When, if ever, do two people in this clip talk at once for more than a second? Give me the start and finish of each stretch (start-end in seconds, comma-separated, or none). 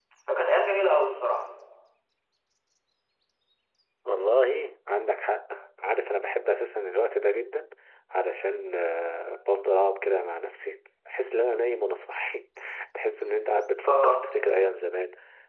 none